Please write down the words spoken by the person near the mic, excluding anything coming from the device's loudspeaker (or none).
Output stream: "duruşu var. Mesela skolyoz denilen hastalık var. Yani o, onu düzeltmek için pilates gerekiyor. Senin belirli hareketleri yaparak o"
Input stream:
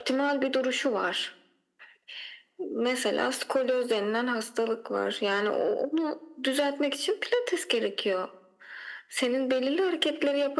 none